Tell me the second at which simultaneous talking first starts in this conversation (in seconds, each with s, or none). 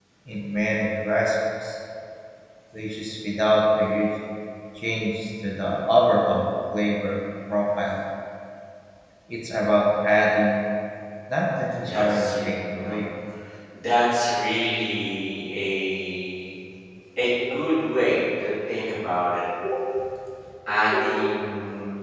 11.8 s